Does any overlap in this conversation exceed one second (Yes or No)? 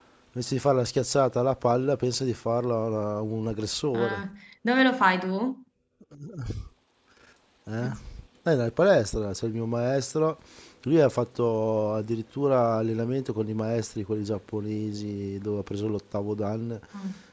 No